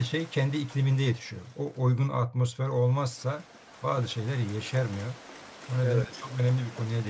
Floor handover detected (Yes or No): No